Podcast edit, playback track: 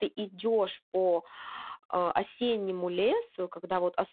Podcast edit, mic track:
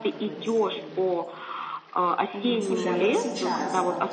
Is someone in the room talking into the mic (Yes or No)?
Yes